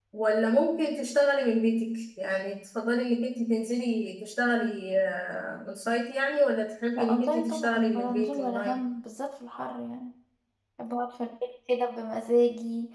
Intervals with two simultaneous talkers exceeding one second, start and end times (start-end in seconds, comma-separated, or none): 7.0-8.9